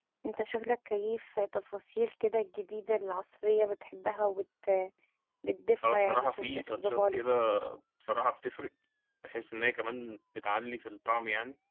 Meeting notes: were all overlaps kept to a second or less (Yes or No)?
No